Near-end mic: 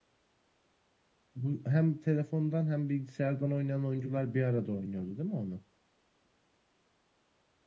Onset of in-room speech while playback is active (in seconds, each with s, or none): none